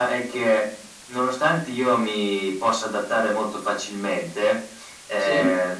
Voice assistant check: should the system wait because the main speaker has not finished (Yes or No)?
Yes